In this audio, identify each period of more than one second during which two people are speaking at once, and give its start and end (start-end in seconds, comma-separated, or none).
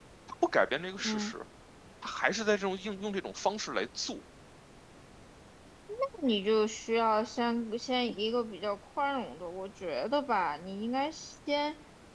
none